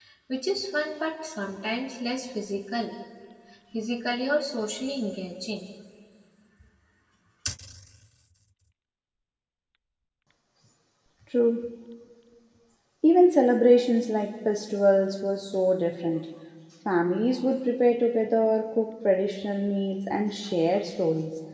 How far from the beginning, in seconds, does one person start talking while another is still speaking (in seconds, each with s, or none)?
none